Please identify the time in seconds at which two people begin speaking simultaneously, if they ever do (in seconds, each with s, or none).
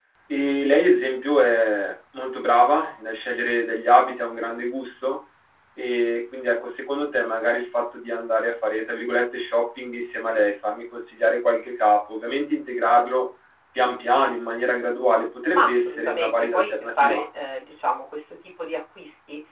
15.5 s